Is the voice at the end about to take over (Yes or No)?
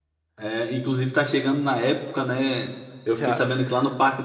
No